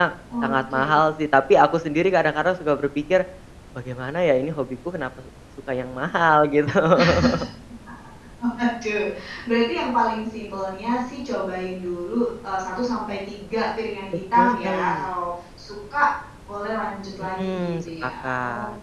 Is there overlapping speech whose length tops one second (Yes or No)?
Yes